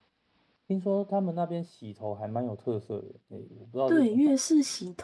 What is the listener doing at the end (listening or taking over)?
taking over